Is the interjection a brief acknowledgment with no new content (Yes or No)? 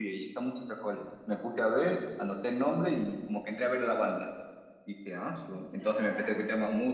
Yes